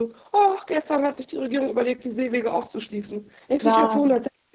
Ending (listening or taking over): listening